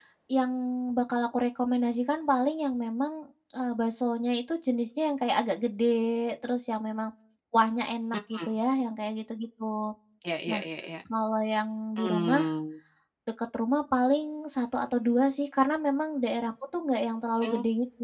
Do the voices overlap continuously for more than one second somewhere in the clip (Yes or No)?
No